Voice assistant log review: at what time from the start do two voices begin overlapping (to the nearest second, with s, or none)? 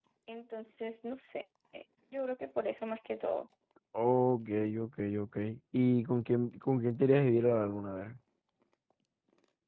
none